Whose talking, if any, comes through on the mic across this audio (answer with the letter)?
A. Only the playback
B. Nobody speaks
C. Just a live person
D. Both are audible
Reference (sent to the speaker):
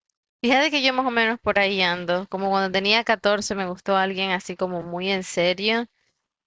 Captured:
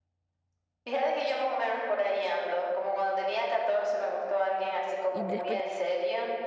D